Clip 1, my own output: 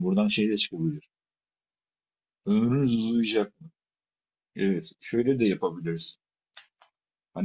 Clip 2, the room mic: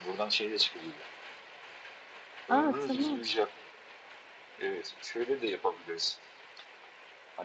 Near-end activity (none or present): present